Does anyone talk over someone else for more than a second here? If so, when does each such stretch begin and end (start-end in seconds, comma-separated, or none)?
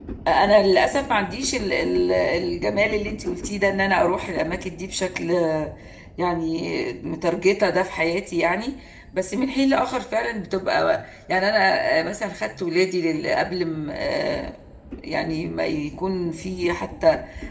none